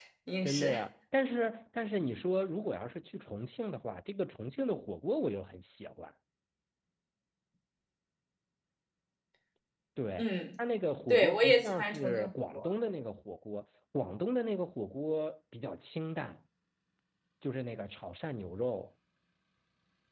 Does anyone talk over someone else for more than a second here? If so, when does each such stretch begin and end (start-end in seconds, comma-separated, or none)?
11.1-12.7